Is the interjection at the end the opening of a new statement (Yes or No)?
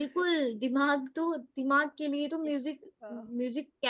No